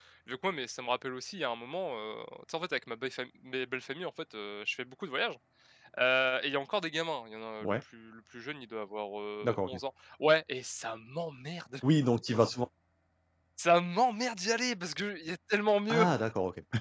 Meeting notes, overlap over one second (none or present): none